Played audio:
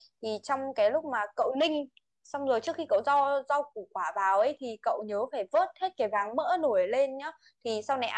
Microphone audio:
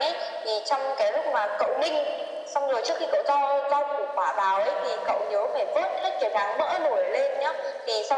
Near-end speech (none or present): none